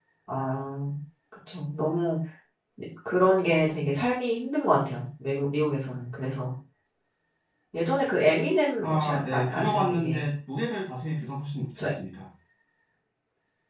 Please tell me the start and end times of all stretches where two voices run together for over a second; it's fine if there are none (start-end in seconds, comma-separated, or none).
8.8-10.3